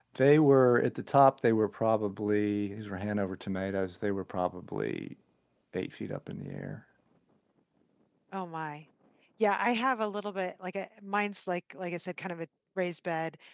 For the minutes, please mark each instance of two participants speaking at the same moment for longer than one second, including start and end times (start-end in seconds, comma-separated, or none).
none